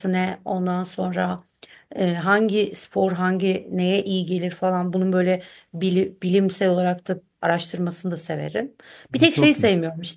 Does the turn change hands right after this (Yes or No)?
No